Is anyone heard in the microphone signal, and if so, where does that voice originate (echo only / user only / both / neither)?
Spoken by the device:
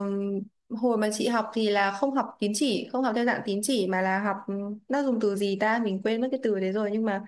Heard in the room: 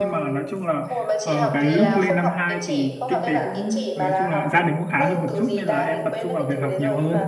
both